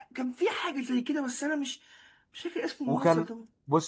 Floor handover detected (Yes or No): Yes